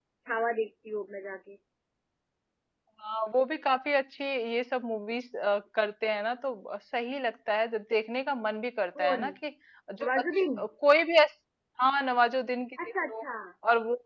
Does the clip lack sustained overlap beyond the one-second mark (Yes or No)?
Yes